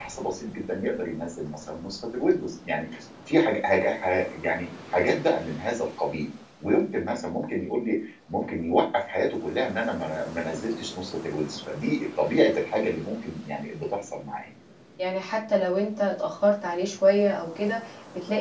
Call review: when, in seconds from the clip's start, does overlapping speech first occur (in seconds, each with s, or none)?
none